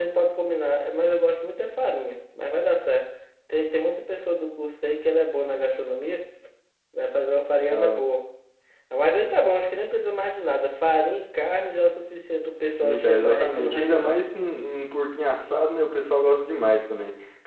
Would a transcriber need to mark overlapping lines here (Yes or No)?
Yes